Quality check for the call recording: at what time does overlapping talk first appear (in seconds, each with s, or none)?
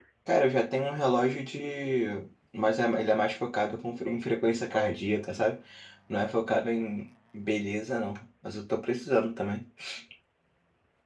none